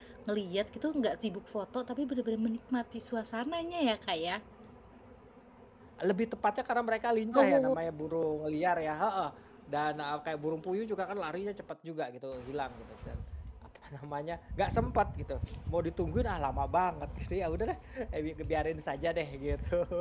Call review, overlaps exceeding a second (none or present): none